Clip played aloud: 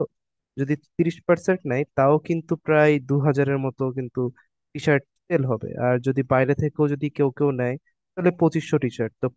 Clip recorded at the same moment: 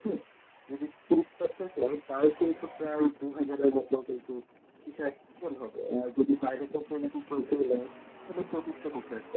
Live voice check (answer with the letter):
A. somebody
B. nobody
B